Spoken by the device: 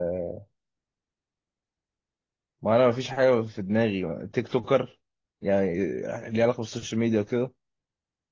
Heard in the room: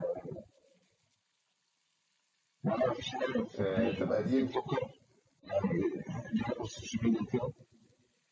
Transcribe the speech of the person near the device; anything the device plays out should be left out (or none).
آه طب قديم